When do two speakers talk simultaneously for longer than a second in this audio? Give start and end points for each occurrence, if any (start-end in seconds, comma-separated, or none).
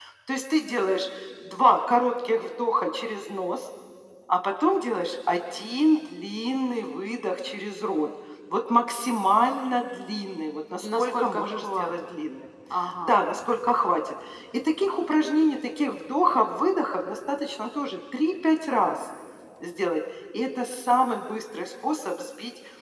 10.8-12.1